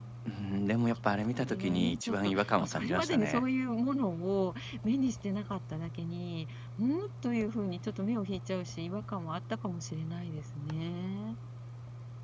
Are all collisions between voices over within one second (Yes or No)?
No